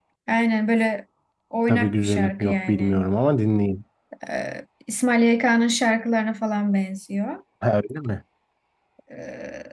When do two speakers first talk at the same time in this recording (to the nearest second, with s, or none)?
2 s